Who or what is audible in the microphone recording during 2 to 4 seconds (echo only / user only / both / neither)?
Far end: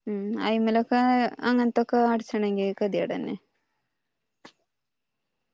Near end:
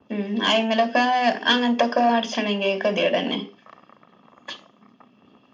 echo only